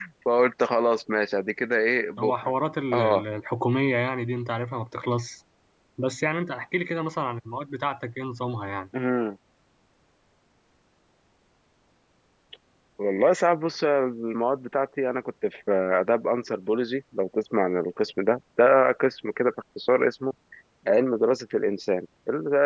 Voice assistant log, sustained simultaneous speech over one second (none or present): none